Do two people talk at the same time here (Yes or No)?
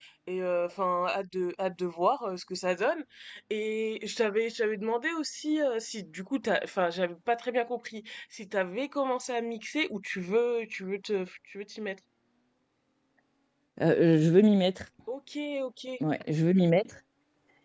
No